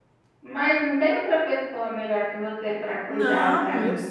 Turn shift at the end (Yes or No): Yes